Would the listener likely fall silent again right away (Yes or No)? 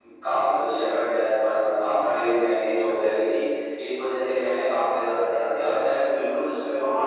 No